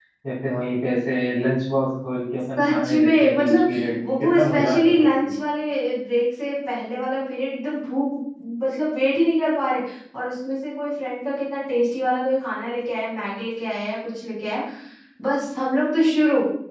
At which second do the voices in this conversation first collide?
2.6 s

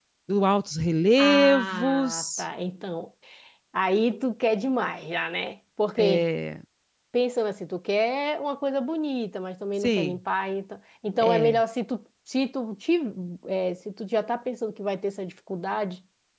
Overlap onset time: 1.2 s

